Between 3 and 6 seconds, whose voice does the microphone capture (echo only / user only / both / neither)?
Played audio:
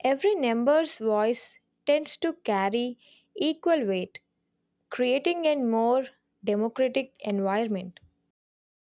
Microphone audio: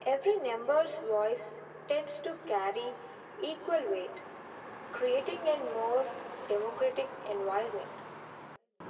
echo only